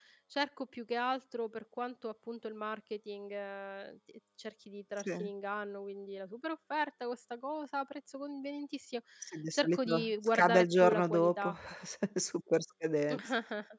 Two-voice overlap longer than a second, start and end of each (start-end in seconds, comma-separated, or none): 9.5-11.5